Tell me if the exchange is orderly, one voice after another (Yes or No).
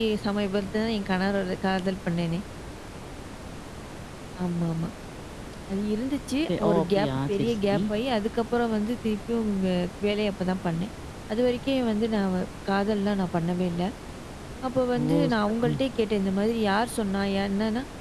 No